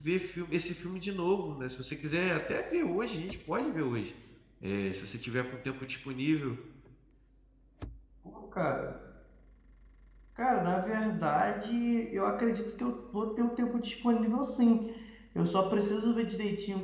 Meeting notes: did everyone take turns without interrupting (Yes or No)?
Yes